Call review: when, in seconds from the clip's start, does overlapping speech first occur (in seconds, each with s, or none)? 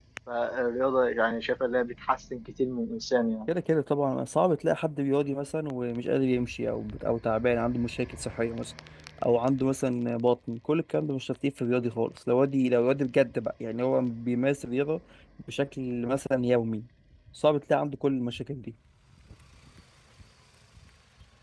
none